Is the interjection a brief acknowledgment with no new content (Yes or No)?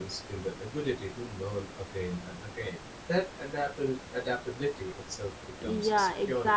No